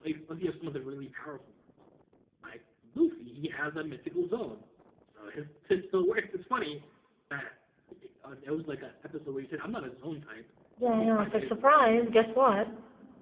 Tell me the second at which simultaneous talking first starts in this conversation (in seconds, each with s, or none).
10.8 s